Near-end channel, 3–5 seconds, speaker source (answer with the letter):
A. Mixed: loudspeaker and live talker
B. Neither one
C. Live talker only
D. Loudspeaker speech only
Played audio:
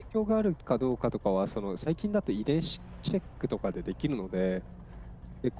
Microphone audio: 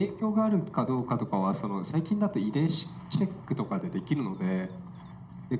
D